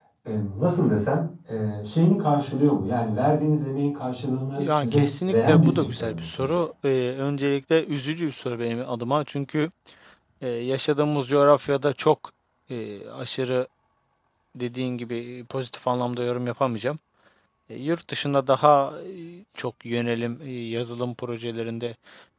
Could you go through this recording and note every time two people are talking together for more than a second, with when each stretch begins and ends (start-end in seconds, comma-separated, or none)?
4.6-6.6